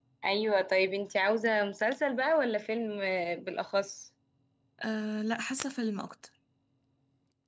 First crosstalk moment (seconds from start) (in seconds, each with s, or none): none